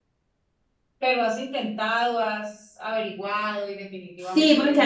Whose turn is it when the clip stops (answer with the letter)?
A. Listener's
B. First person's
A